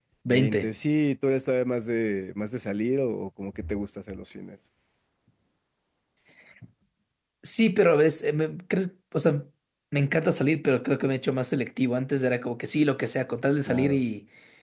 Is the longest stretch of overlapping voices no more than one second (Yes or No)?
Yes